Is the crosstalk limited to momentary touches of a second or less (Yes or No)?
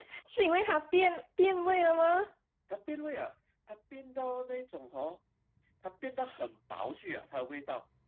Yes